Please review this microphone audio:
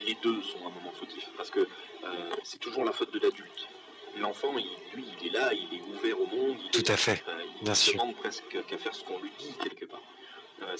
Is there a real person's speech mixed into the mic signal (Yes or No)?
Yes